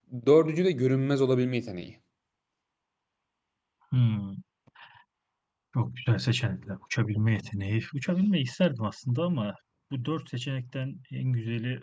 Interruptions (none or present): none